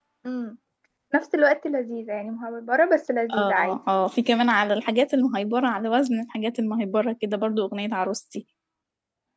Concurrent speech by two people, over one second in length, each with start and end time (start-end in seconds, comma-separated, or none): none